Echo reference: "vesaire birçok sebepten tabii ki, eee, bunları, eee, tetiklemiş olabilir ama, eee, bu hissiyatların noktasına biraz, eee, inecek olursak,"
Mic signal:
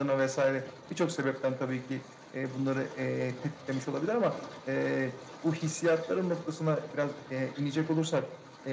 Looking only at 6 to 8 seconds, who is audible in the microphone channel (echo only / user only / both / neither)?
echo only